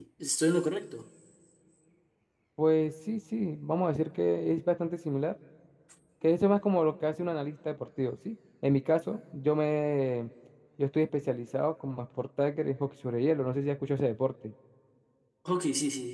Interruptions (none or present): none